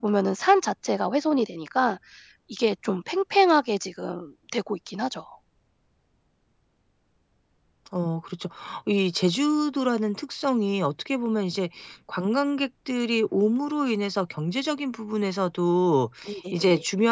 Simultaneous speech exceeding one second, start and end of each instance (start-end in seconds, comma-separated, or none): none